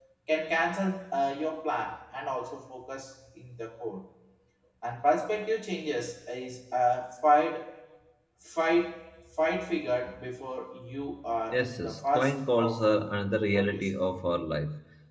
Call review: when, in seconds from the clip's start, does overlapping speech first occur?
11.5 s

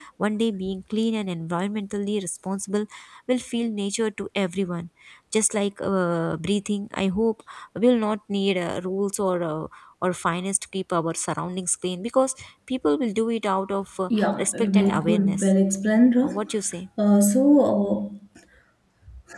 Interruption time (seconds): 14.1 s

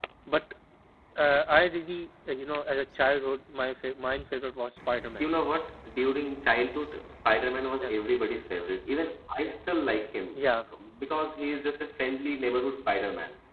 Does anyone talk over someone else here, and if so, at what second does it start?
none

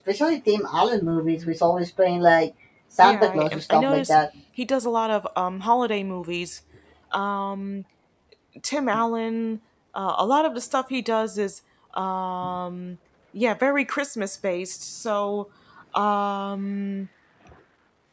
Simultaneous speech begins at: 3.0 s

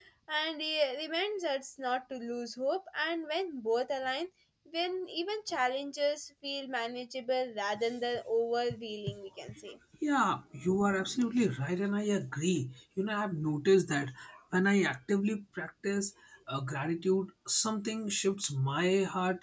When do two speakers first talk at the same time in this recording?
none

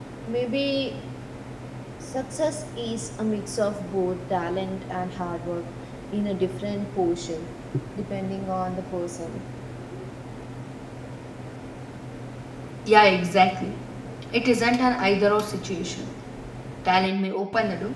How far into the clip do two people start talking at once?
none

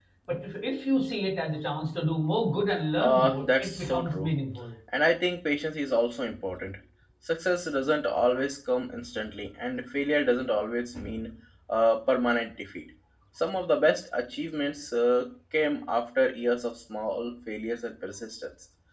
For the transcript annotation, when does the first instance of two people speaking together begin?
3.0 s

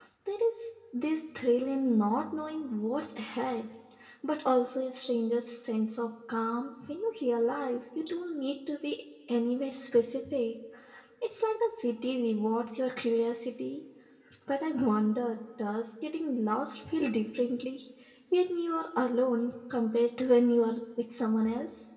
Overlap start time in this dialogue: none

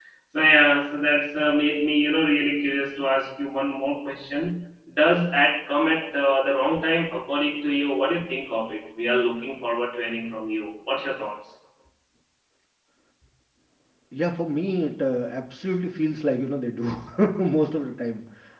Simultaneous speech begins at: none

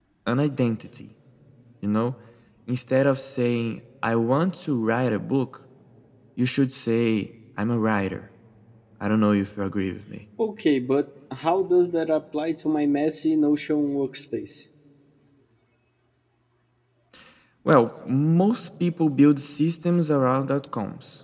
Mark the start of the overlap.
none

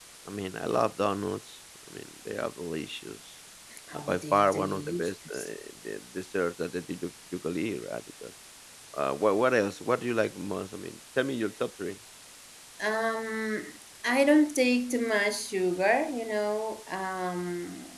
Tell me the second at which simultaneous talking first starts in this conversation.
3.9 s

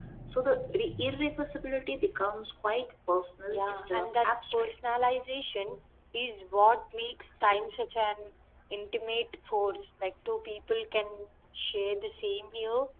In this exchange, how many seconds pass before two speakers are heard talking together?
3.5 s

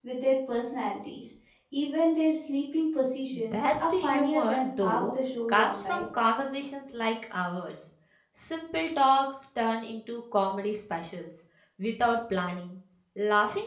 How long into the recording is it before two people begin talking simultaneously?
3.3 s

